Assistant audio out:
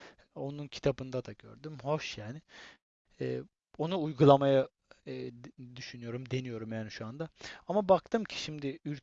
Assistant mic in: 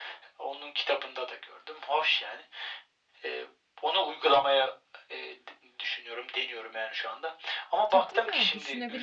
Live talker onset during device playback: 8 s

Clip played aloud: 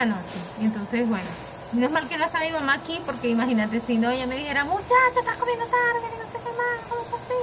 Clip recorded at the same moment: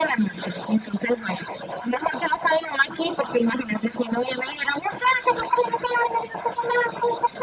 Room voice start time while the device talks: none

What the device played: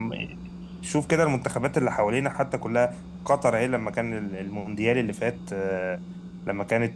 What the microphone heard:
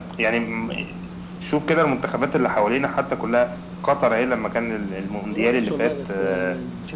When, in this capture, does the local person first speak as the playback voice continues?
5 s

